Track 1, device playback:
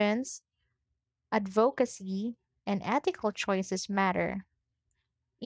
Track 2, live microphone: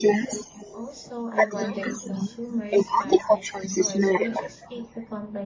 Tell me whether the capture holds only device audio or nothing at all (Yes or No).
No